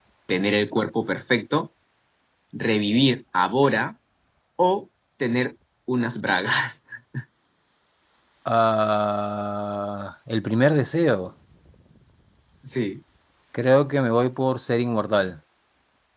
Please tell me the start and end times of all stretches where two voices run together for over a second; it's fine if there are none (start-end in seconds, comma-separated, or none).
none